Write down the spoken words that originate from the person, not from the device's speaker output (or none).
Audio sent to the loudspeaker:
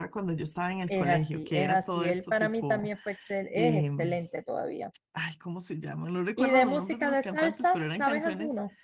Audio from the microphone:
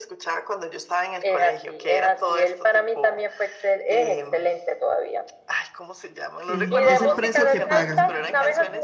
sí, es el precio que pagan.